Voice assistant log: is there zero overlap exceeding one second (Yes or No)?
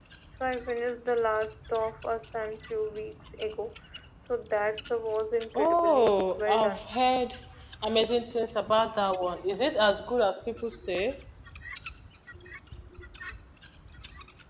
No